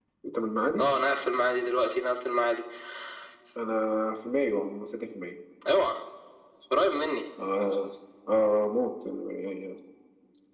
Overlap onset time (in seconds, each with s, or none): none